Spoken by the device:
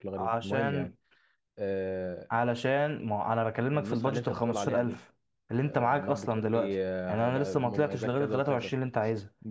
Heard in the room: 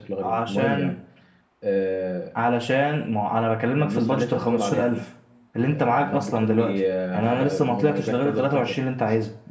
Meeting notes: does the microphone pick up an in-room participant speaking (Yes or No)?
No